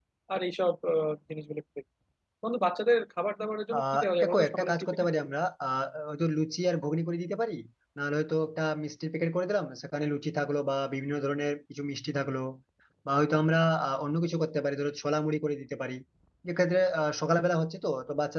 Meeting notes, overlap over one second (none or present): present